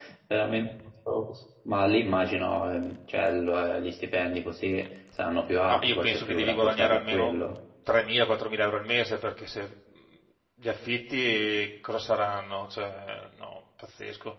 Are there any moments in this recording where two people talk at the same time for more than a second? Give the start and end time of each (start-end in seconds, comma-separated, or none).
5.7-7.4